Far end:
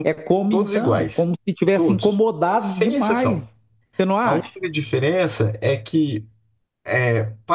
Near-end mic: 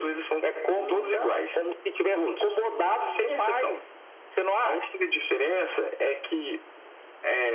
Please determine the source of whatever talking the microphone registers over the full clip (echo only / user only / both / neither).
both